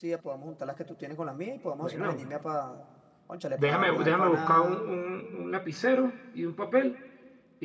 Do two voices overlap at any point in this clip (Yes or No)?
Yes